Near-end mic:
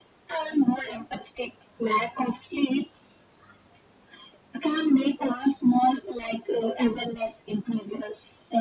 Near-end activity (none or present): none